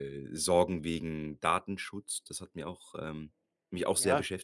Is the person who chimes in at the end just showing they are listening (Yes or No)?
No